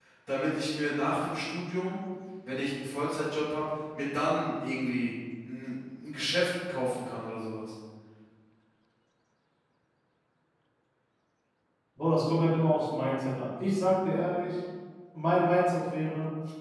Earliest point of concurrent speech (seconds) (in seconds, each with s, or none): none